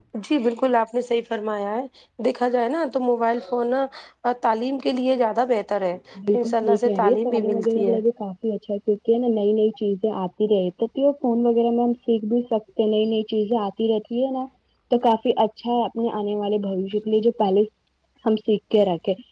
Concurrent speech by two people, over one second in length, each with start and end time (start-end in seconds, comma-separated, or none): 6.3-8.0